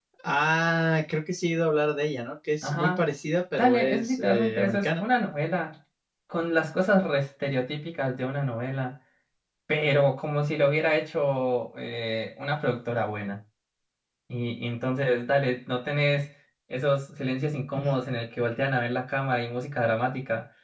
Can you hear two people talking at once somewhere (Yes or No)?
Yes